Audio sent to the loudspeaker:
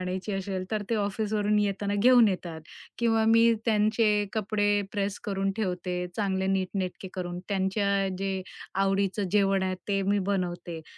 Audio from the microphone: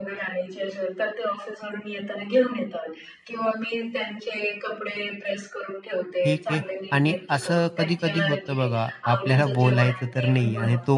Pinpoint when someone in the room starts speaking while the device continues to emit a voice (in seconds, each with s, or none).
6.2 s